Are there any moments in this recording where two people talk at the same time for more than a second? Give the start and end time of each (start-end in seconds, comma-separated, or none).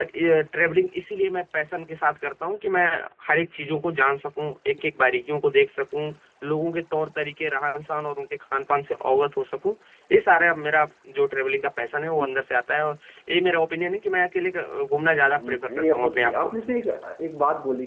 15.3-16.5